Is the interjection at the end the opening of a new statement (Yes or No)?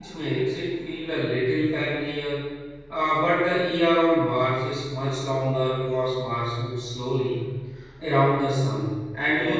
No